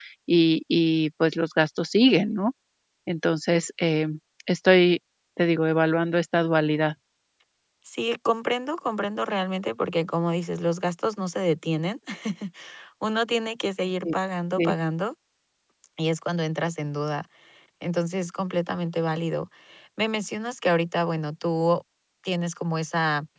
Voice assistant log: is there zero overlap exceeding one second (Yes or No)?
Yes